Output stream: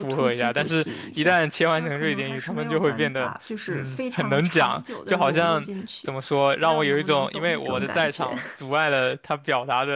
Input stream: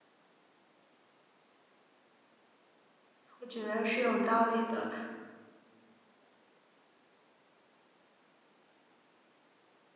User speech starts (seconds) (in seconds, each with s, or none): 3.4 s